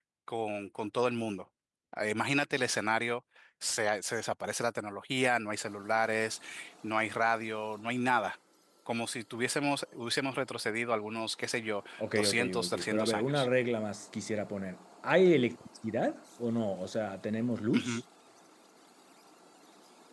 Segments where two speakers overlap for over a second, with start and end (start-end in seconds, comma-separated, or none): 12.0-13.5